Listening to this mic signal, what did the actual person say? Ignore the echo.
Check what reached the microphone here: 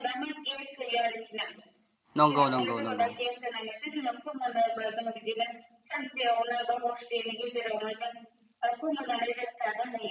नंगौ नंगौ नंगौ

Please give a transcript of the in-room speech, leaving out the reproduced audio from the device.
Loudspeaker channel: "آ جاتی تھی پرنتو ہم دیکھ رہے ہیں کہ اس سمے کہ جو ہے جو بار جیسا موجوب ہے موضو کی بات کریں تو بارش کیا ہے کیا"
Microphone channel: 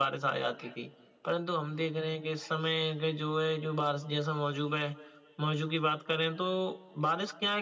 none

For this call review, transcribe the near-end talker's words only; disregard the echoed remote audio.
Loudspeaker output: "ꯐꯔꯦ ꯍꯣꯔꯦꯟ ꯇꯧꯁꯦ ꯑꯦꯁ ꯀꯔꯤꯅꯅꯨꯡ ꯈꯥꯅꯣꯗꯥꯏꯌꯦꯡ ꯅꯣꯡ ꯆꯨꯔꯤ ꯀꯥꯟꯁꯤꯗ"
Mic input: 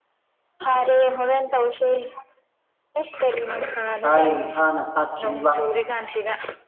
ꯇꯥꯏ ꯃꯁꯥꯅ ꯇꯥꯠꯈꯤꯅꯤꯕ

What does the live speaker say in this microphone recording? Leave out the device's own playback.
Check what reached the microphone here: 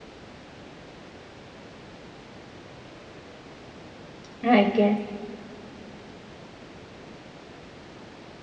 ଆଜ୍ଞା

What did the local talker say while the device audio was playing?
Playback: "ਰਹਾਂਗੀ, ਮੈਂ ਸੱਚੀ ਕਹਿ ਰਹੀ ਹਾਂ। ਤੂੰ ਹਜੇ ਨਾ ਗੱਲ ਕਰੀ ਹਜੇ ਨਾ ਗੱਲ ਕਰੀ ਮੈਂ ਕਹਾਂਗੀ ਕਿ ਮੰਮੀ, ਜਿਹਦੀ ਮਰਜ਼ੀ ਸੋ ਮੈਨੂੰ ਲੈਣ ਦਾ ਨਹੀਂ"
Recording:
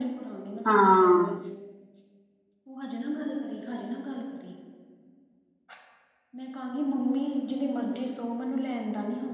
ਹਾਂ

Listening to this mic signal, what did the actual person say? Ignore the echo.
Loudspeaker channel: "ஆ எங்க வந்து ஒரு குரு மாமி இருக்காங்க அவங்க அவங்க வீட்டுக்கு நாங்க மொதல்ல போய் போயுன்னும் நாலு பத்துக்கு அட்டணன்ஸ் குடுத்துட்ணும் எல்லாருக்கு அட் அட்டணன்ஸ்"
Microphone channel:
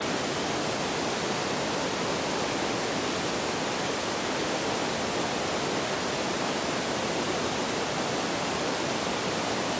none

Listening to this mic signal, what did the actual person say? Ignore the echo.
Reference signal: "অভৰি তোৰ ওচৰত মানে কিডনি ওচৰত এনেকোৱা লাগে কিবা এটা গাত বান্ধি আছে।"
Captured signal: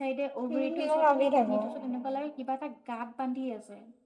উম মইও ভাবি থাকো।

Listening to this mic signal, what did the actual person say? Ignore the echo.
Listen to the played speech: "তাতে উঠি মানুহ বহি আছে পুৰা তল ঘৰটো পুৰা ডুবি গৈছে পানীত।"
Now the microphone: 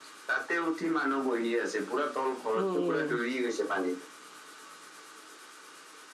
উম উম

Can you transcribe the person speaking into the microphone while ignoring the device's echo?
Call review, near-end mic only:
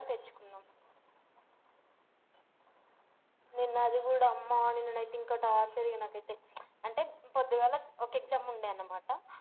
none

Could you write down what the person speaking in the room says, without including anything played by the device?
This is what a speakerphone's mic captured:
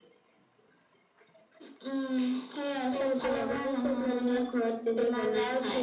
none

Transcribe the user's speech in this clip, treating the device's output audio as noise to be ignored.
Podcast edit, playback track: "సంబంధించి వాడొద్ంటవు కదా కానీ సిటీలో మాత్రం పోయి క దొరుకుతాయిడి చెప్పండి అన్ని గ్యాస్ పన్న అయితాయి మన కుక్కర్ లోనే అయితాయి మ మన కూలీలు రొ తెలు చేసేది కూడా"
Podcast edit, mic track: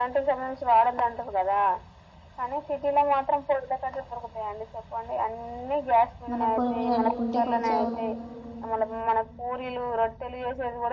మనం పొయ్యి మీద అండుకుంటే కొంచెం

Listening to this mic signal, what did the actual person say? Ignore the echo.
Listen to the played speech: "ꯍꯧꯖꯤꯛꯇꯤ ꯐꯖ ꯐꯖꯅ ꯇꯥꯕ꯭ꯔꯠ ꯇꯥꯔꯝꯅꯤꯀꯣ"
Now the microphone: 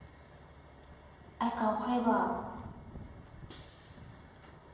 ꯑꯩ ꯀꯥꯎꯈ꯭ꯔꯦꯕ

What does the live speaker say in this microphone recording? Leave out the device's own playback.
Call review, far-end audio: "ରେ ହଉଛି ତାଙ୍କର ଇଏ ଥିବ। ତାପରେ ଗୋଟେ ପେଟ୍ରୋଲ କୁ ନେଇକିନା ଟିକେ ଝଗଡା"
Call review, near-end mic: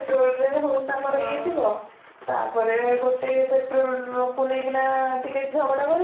ହଁ

